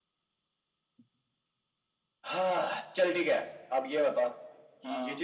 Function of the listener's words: listening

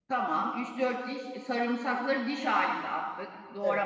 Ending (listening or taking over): taking over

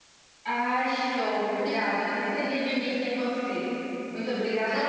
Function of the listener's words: taking over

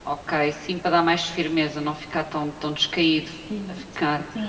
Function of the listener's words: taking over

